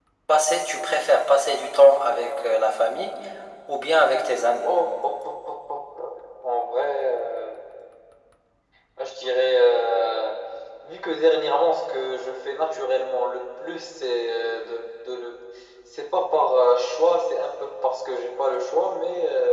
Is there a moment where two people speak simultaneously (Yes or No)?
No